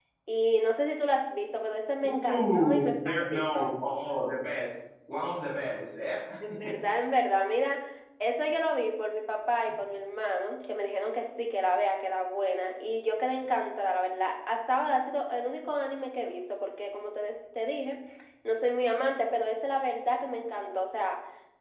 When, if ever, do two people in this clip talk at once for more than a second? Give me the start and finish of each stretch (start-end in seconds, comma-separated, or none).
2.0-3.7